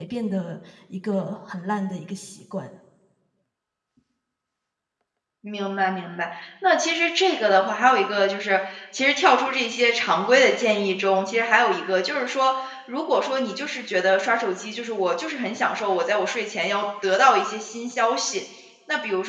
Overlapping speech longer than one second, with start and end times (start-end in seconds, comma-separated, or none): none